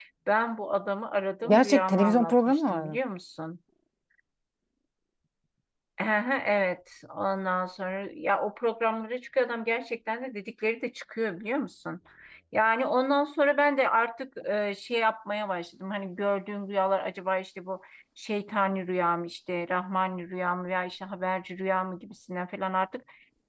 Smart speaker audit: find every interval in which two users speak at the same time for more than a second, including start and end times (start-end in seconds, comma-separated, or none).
1.5-3.0